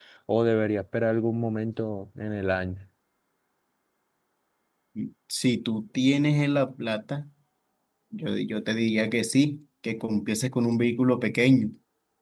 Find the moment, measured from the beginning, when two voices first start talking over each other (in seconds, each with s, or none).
none